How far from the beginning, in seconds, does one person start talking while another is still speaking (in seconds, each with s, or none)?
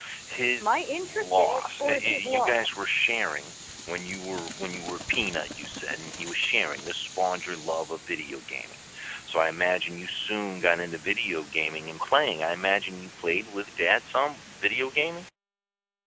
0.6 s